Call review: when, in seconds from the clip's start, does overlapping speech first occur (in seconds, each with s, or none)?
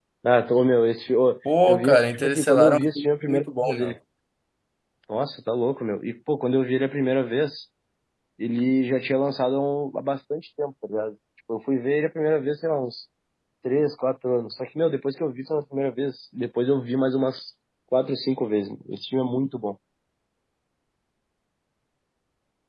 1.4 s